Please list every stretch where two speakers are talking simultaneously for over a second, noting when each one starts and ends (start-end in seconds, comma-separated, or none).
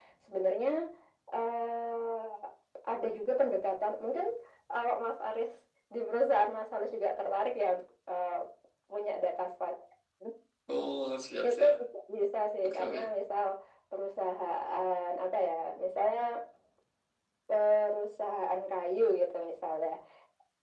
none